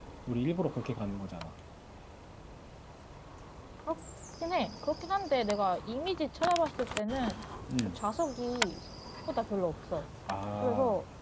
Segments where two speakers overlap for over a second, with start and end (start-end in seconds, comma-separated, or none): none